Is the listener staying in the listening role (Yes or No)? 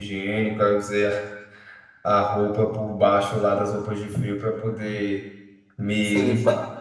Yes